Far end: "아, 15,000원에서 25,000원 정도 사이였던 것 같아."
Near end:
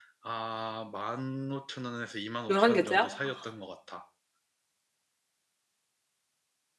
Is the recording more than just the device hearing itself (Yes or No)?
Yes